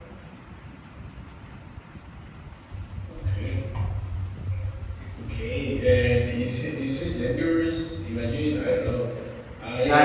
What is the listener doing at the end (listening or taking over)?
taking over